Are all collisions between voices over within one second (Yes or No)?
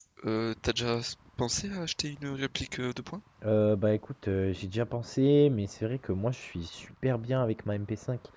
Yes